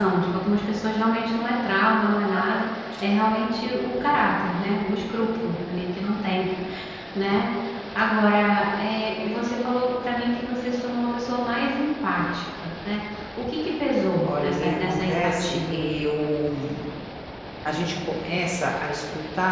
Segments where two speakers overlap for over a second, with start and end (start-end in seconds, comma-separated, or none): 14.2-15.9